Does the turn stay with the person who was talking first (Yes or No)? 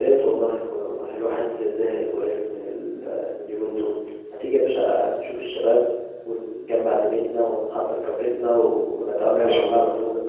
No